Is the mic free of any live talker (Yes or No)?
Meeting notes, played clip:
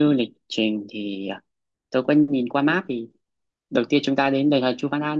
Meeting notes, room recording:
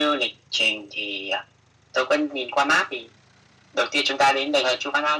Yes